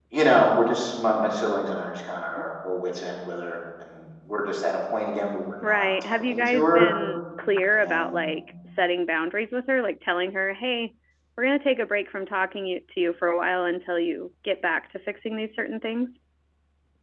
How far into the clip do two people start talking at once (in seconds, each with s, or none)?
5.6 s